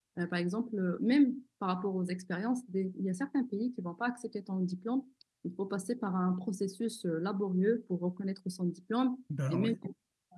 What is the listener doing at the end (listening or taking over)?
listening